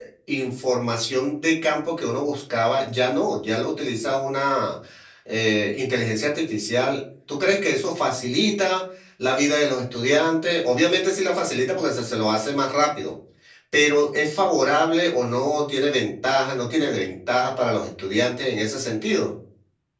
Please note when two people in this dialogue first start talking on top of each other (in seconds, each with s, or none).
none